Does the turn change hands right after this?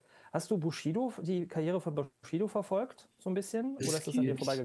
Yes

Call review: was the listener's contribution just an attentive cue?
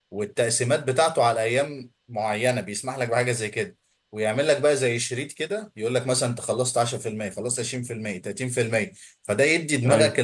Yes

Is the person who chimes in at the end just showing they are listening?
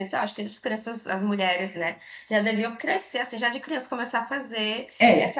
No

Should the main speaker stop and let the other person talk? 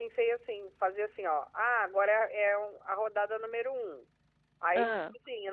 No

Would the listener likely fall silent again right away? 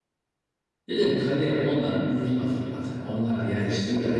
Yes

